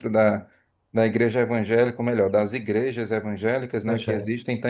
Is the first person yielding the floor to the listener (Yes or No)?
No